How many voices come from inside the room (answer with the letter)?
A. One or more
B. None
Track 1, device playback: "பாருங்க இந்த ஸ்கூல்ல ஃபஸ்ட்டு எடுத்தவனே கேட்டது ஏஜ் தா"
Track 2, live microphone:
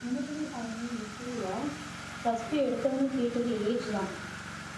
B